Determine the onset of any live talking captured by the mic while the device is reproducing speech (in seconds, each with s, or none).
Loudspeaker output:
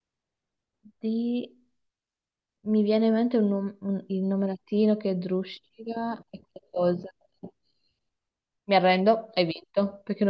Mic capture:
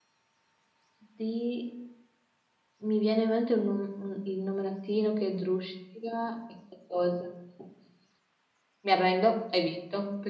none